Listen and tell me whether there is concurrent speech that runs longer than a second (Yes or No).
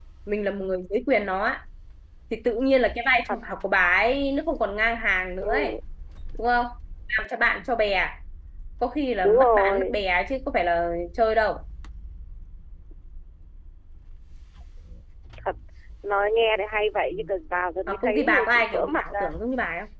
Yes